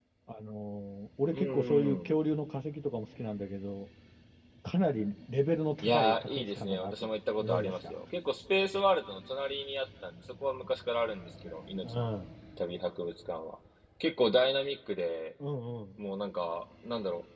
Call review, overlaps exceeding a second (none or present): present